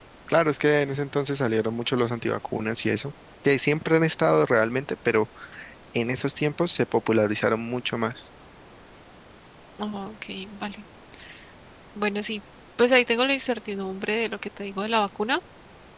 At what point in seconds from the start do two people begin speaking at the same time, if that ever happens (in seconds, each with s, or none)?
none